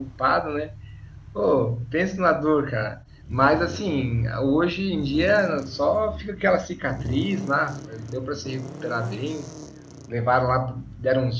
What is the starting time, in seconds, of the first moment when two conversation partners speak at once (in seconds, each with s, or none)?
none